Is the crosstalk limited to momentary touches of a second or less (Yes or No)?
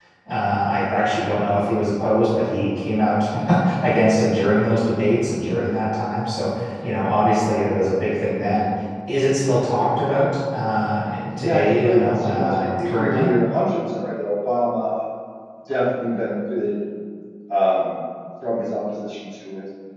No